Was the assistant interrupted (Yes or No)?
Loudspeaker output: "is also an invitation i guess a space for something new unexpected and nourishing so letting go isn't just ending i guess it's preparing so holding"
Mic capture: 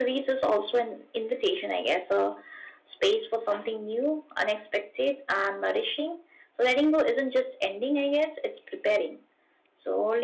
No